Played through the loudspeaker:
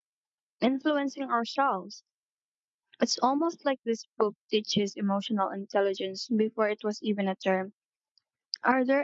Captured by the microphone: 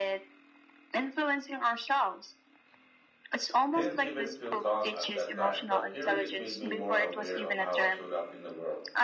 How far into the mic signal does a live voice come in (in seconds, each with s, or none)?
3.7 s